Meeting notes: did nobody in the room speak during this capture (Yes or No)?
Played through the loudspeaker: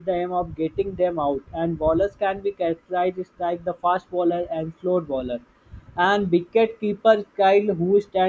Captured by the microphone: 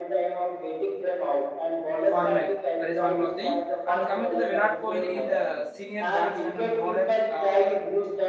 No